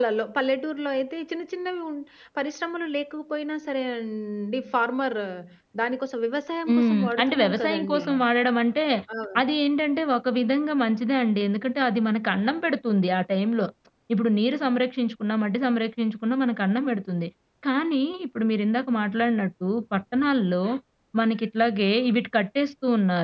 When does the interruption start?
6.7 s

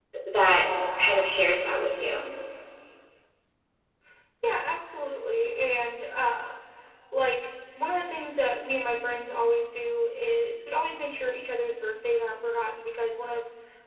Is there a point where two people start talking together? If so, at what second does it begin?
none

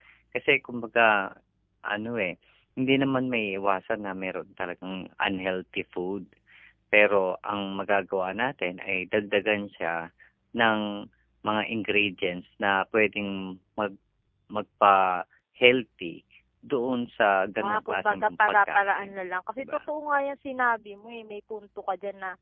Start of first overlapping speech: 17.6 s

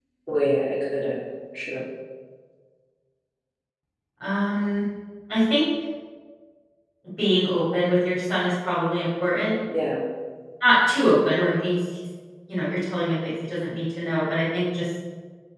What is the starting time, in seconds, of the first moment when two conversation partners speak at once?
none

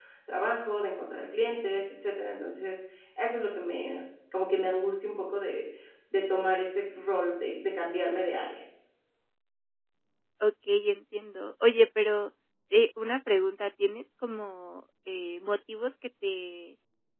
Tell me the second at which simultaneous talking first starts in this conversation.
none

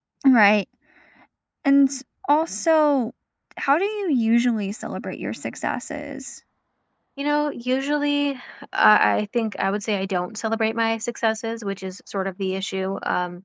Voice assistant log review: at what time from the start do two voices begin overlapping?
none

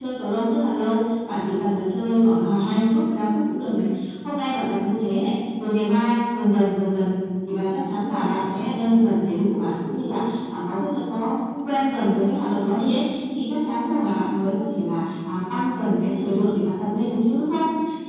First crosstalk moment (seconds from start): none

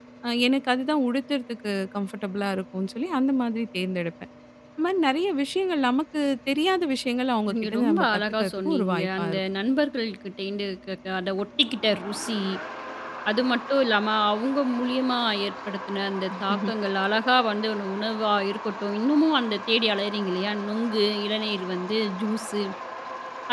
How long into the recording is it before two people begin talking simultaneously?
7.5 s

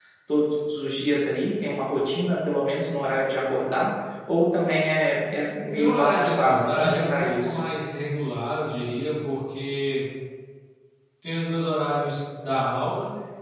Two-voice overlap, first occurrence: 5.7 s

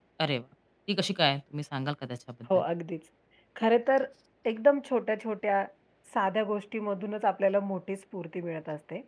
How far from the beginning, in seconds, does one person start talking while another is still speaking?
none

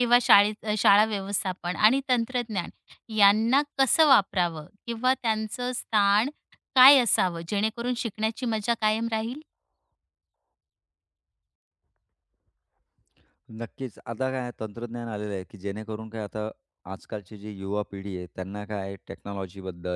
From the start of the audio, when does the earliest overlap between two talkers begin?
none

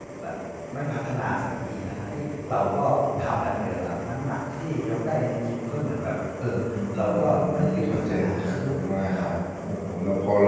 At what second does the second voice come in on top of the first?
7.1 s

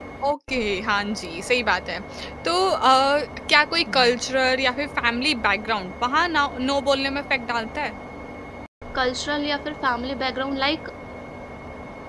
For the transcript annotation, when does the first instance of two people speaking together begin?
none

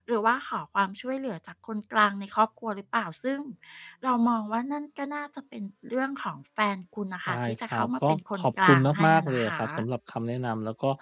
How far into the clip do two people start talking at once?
7.3 s

